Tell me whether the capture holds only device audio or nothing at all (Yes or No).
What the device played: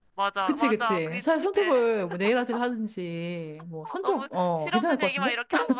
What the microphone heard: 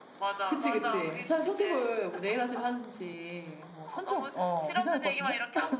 Yes